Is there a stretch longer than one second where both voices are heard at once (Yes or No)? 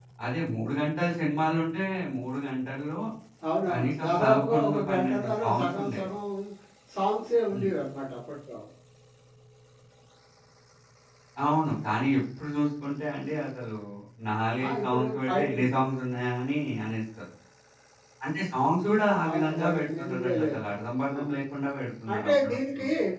Yes